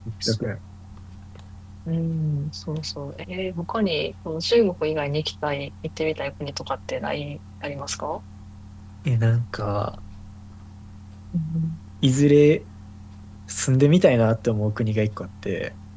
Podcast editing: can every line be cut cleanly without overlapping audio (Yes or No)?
Yes